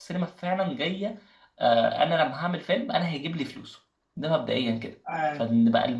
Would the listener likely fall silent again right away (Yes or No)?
Yes